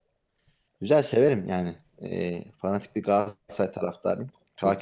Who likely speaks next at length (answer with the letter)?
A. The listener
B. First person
A